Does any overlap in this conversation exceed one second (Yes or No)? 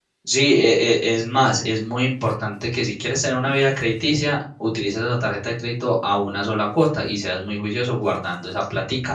No